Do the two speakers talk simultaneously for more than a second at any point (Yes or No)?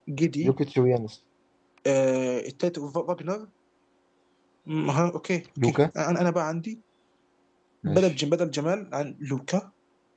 No